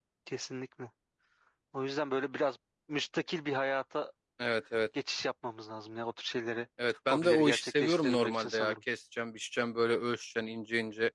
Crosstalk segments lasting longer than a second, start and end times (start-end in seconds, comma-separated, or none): 7.1-8.7